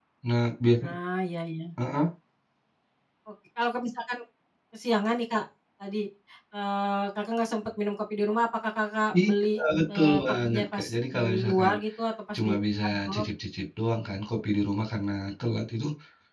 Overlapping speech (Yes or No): Yes